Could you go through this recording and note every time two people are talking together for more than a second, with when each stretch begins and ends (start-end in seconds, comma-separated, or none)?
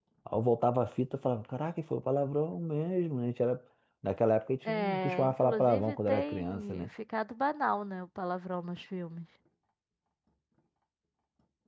4.7-6.9